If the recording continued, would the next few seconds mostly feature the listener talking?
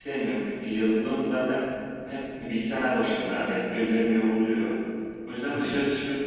No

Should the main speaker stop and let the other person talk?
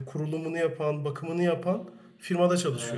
Yes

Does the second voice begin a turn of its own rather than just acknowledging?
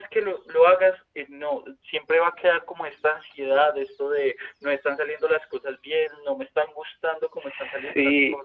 Yes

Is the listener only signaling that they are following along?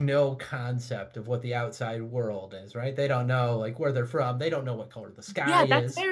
No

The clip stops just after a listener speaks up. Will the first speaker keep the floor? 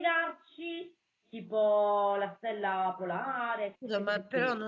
No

